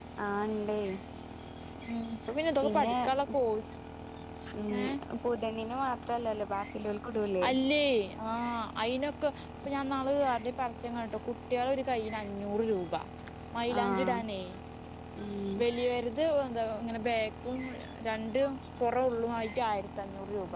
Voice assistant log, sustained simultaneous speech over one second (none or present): none